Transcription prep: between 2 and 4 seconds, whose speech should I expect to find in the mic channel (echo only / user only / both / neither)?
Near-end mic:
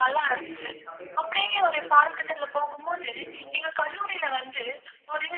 both